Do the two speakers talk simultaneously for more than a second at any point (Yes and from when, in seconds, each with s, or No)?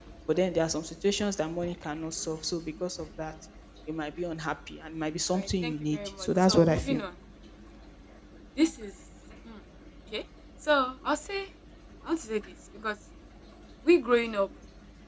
Yes, from 5.3 s